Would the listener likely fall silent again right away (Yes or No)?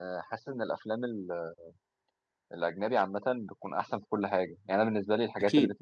Yes